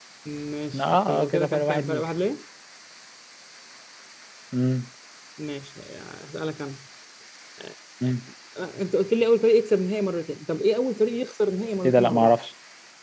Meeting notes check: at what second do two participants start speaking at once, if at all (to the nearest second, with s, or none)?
1 s